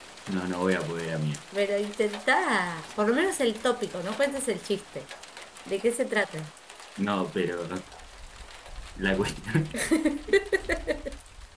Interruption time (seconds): none

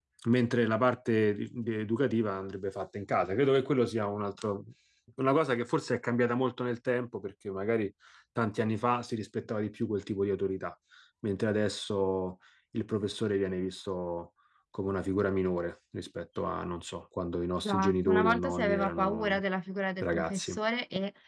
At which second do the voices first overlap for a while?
17.6 s

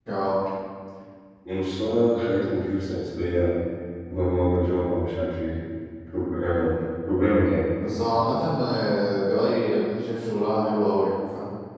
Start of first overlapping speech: none

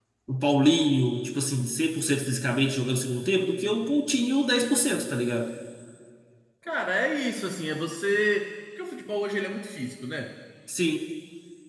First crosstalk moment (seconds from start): none

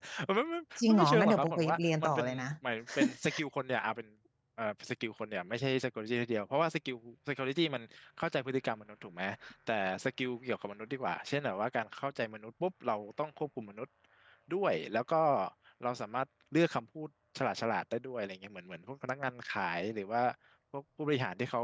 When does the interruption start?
0.8 s

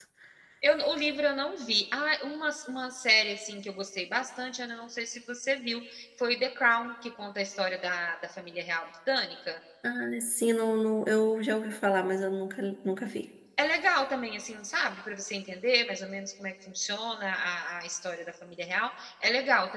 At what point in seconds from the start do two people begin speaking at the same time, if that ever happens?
none

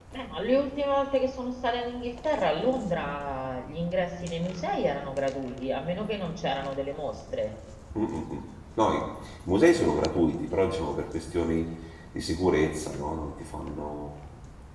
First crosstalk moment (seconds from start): none

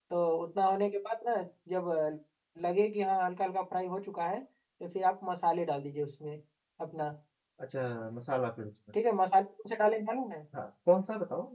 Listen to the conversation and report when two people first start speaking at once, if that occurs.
none

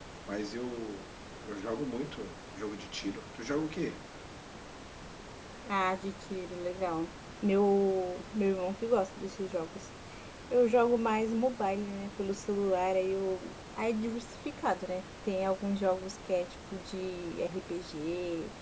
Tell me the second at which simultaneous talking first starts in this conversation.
none

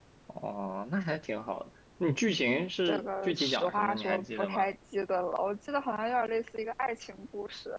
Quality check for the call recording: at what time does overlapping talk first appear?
2.9 s

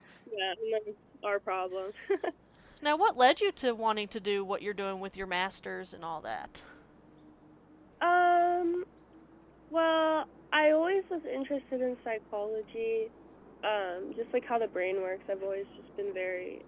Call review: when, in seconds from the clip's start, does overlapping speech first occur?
none

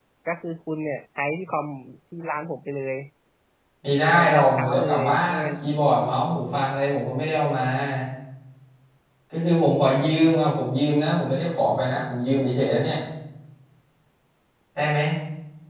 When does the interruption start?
4.1 s

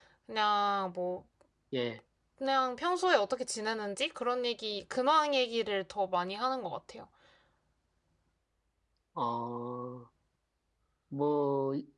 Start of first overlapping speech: none

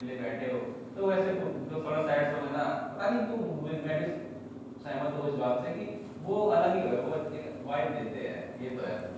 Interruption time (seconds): none

